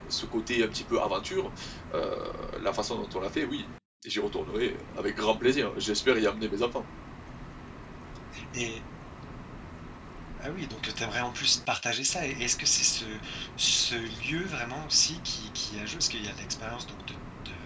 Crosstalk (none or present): none